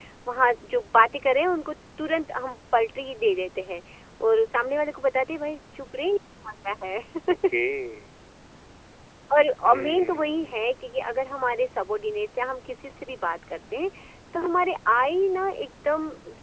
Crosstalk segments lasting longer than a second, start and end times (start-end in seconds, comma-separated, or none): 9.6-11.0